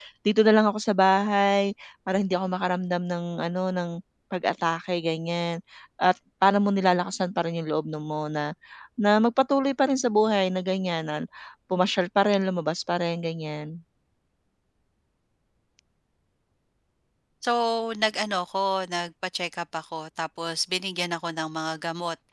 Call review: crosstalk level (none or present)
none